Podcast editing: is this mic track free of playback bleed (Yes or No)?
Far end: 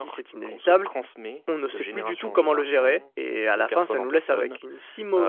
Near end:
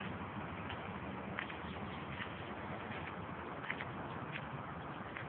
Yes